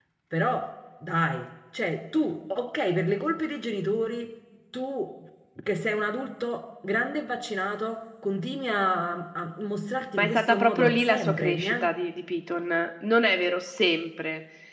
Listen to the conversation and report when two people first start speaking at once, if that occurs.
10.2 s

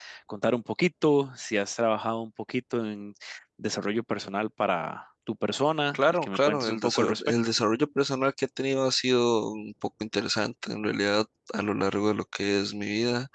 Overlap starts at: 5.9 s

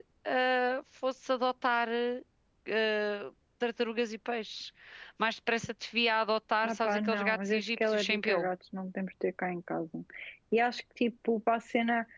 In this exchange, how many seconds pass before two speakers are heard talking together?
6.6 s

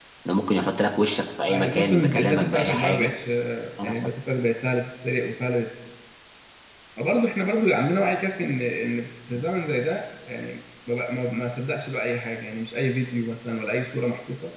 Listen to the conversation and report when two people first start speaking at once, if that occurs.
1.5 s

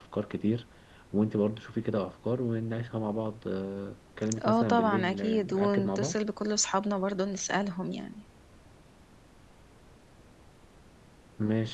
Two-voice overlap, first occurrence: 4.3 s

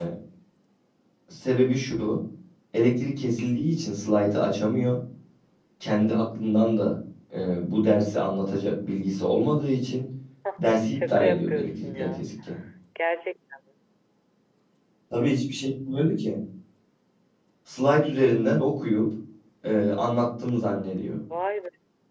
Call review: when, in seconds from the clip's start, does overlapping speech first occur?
10.8 s

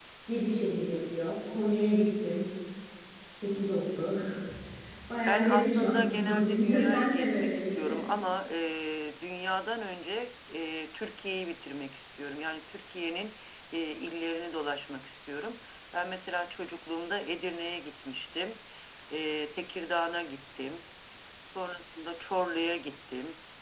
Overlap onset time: 5.2 s

